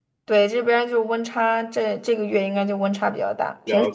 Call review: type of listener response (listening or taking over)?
taking over